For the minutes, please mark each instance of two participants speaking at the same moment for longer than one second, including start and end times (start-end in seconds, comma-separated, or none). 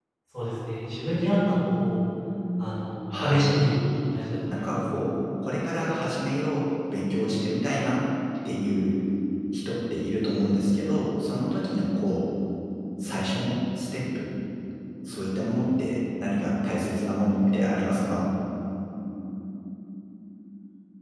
none